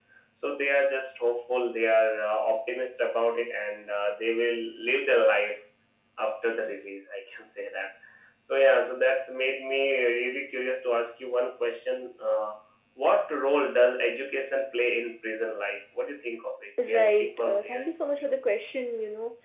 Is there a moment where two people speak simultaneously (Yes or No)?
Yes